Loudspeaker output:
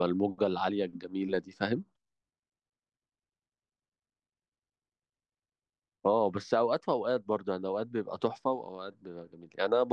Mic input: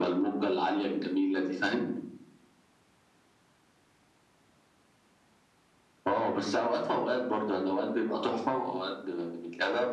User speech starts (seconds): none

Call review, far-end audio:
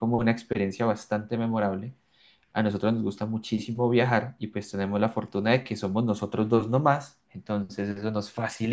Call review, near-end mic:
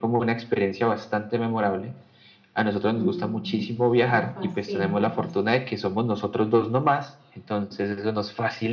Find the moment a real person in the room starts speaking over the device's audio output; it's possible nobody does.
3.0 s

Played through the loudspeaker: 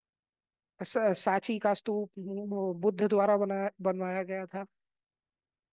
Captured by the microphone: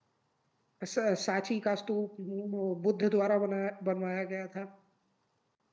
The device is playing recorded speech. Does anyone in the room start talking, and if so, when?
none

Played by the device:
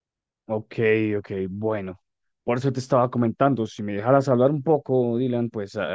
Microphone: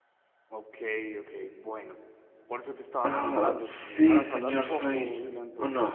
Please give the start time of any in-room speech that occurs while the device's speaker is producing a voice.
3.0 s

